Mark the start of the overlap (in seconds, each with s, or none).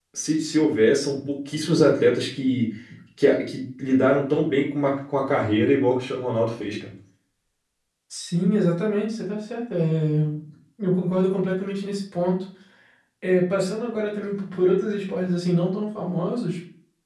none